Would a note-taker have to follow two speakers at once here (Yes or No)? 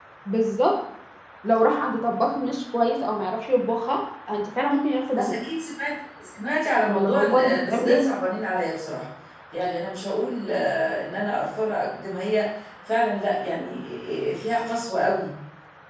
Yes